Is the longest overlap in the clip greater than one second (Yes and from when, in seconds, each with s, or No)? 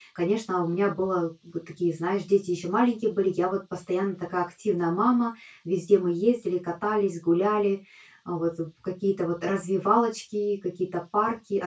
No